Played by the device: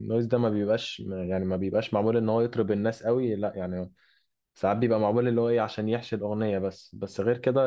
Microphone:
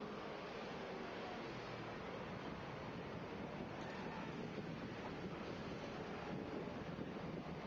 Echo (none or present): none